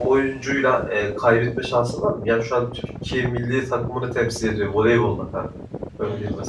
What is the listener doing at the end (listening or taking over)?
taking over